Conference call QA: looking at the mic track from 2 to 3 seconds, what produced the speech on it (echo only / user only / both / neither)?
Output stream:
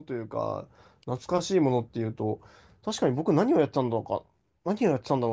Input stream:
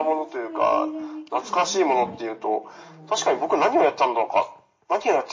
both